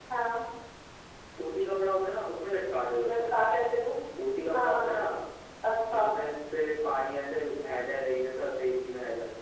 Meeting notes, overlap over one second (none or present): none